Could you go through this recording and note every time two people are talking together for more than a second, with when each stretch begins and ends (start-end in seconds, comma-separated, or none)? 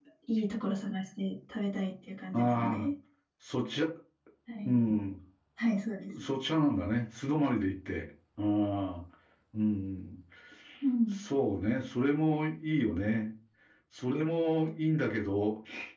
none